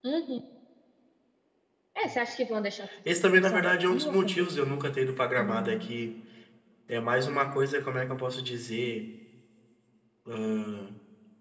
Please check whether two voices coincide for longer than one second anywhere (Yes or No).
Yes